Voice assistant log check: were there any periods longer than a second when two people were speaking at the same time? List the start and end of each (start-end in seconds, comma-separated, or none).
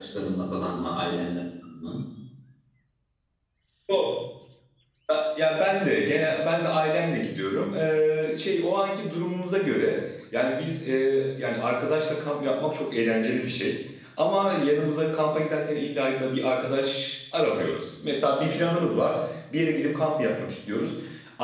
none